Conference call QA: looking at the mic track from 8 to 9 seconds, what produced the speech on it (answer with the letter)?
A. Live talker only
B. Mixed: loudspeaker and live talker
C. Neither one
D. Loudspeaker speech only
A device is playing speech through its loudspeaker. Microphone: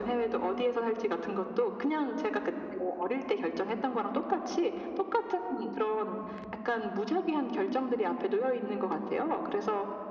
D